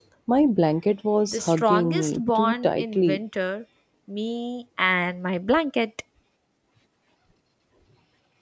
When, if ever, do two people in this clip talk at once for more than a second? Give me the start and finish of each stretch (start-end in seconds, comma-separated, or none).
1.3-3.2